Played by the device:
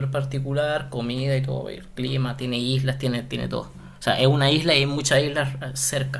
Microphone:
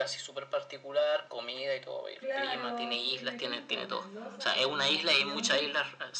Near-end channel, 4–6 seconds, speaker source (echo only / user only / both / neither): both